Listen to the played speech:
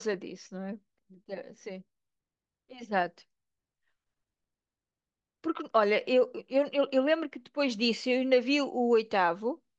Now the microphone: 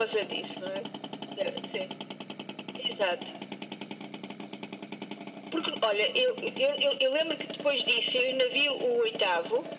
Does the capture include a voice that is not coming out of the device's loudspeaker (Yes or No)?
No